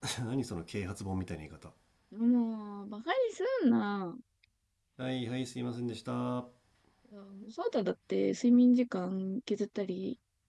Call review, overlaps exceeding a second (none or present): none